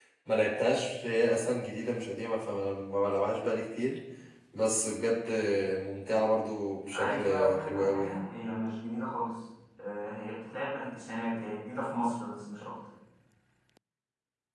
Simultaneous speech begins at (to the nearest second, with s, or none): 7 s